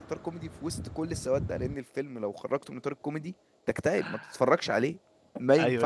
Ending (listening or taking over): taking over